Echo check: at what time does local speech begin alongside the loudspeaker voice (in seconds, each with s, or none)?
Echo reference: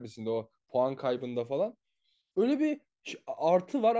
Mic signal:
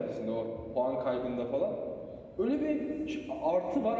none